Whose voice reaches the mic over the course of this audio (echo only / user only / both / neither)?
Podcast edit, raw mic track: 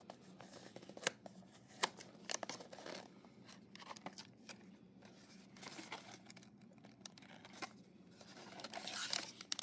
neither